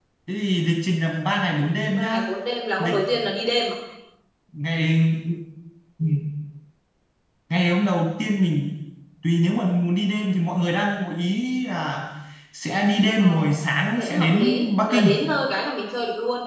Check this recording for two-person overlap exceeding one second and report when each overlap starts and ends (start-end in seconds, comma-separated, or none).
14.0-15.2